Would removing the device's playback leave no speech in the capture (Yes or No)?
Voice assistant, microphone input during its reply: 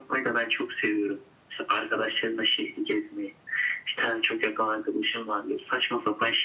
Yes